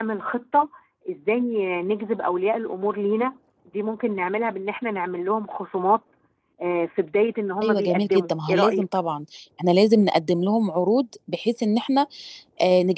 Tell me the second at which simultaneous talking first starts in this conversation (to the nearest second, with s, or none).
8 s